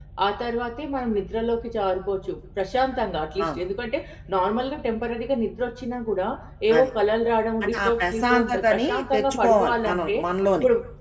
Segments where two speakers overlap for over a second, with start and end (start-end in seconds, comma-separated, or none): 7.6-10.1